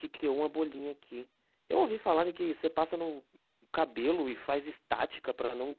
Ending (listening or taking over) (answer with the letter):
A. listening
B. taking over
B